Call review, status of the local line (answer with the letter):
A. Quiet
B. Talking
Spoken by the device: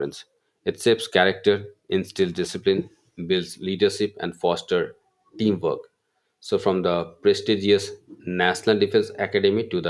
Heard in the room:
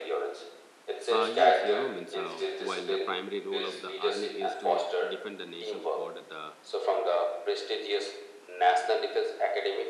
B